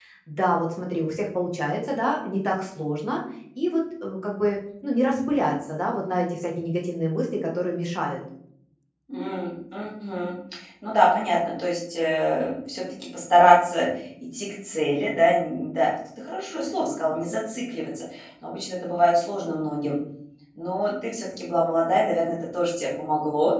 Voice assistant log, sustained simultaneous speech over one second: none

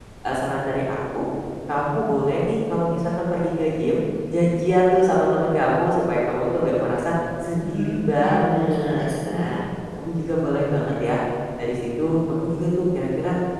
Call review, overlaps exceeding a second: present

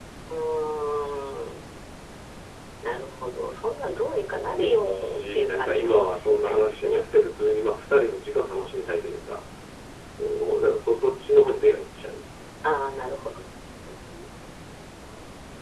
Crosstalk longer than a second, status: present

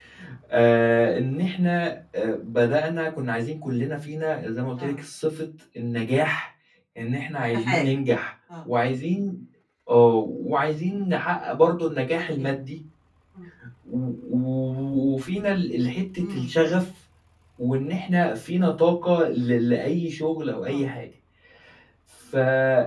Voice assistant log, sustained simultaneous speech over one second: none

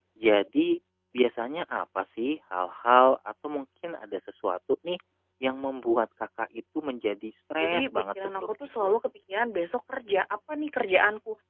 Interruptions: present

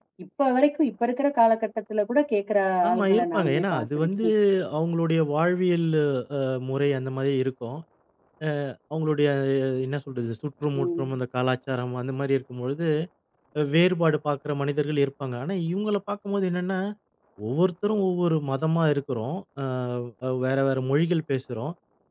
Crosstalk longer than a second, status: present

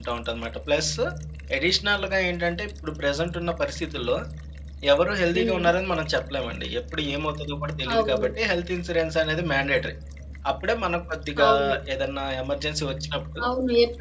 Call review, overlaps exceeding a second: none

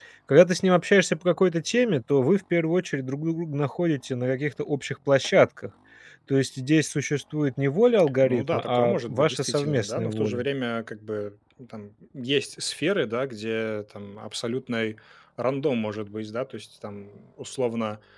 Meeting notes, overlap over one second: present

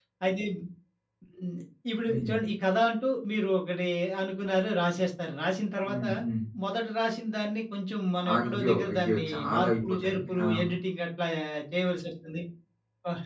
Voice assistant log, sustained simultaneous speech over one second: present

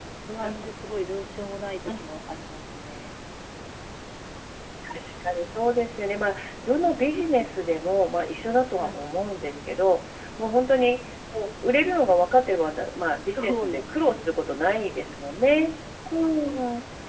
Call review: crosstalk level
present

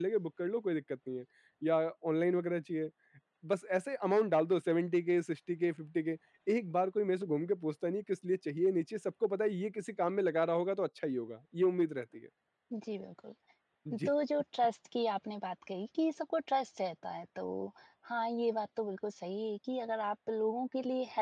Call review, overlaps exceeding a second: none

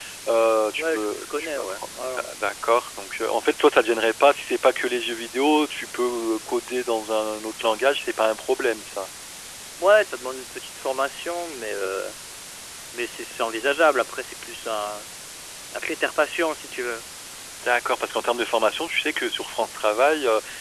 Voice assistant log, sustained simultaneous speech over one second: present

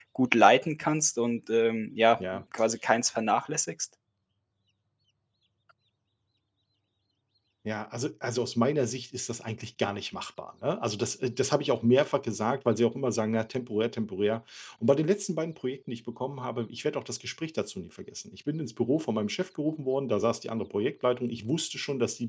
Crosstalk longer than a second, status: none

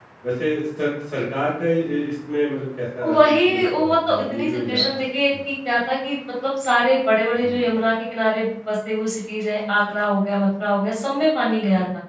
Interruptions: present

